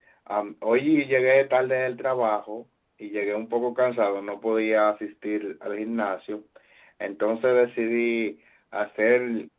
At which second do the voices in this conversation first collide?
none

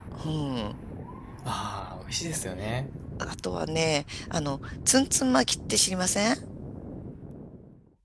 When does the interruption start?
none

